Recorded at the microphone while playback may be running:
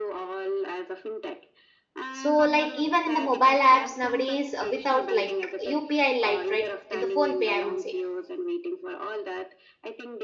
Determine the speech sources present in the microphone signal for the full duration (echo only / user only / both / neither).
both